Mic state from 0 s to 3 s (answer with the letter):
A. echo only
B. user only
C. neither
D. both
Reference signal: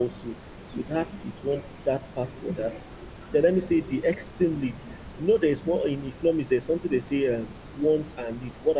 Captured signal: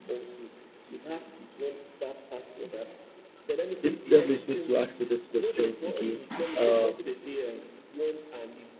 A